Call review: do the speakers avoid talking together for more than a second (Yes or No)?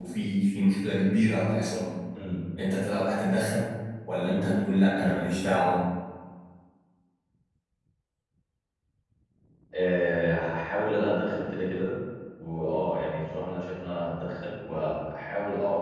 Yes